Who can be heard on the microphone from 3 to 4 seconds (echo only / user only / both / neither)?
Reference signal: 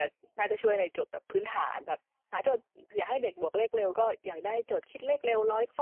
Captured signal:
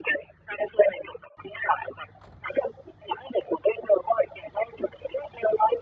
echo only